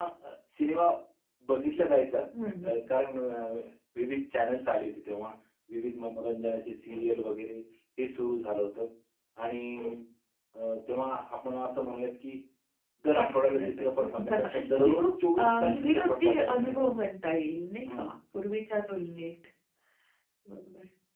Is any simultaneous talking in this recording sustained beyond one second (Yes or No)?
Yes